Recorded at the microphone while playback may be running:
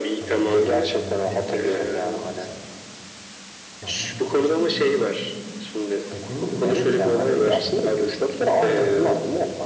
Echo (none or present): present